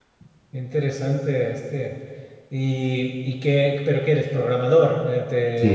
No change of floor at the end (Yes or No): No